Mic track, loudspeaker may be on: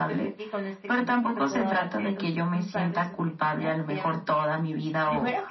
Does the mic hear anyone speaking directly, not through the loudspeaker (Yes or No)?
No